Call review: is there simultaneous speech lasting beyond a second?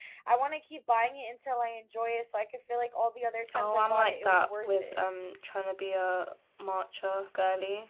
Yes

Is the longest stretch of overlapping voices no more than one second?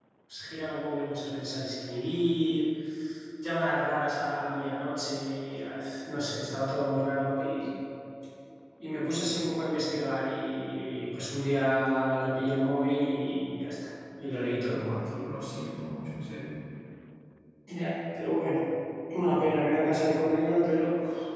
Yes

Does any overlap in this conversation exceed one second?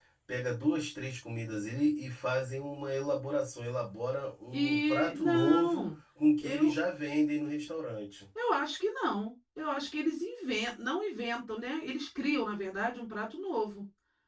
Yes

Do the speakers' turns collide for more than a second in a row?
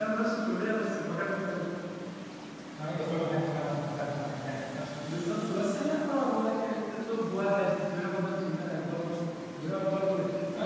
No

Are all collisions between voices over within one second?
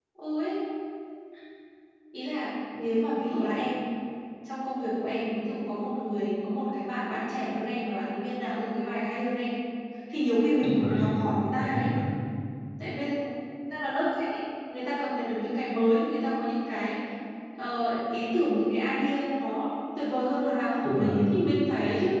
No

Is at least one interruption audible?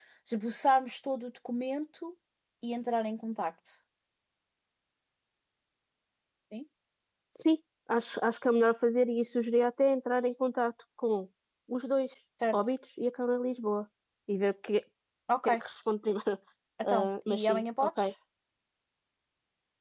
Yes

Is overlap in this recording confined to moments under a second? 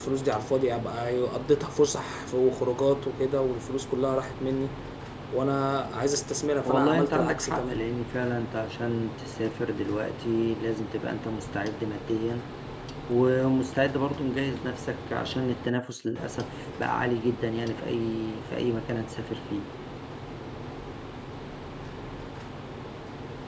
No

